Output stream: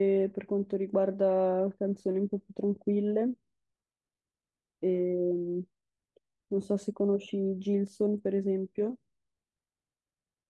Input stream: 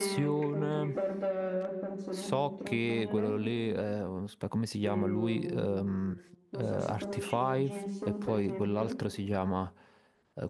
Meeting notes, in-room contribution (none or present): present